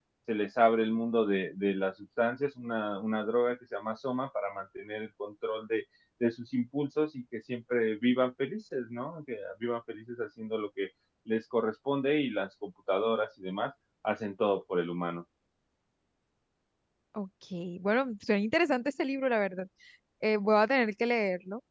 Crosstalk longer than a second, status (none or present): none